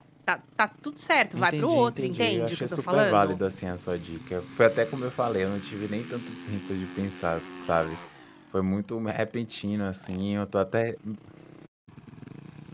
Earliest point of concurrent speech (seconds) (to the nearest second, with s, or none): 1 s